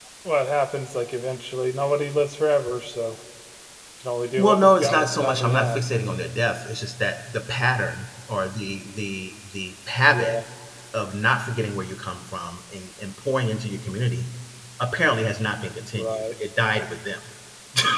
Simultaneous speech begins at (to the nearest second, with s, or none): 4 s